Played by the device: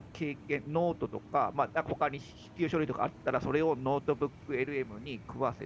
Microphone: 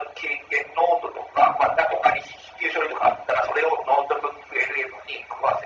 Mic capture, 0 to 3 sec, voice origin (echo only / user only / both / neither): echo only